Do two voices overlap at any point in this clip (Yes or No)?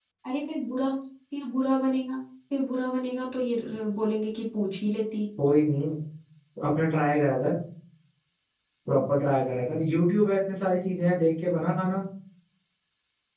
No